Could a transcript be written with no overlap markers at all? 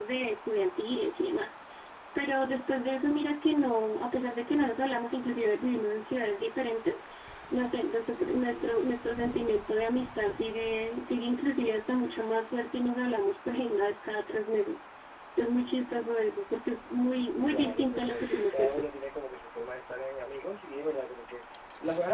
No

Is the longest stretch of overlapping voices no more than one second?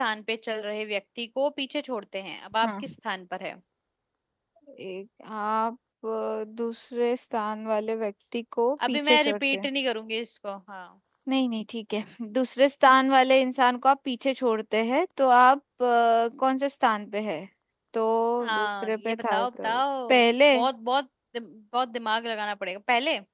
No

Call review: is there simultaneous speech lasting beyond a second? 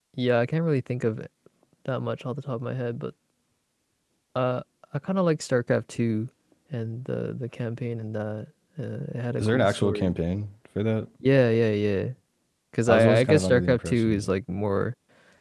Yes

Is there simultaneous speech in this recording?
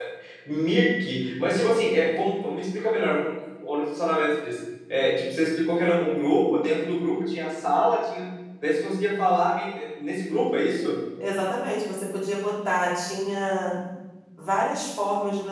No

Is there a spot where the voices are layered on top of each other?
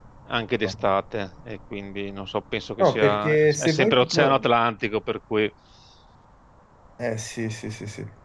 Yes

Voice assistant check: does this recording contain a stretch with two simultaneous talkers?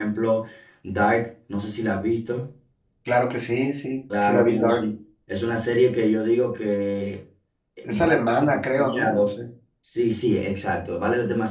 Yes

